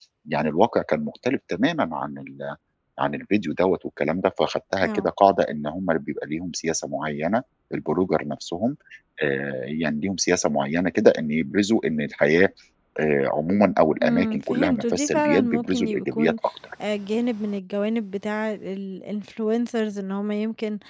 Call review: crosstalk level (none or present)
present